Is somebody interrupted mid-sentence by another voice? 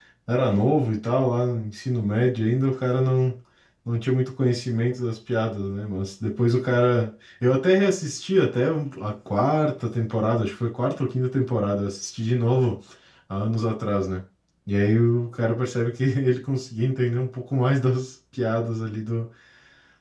No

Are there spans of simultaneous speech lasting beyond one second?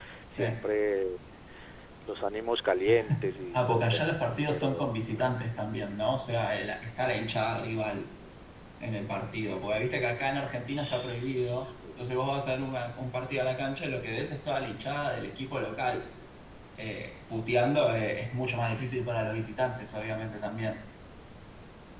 Yes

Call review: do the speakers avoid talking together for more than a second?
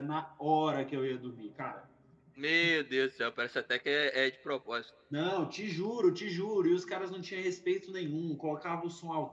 Yes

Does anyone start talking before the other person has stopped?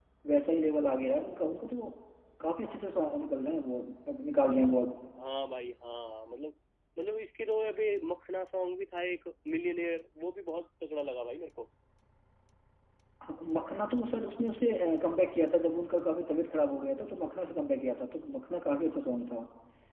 No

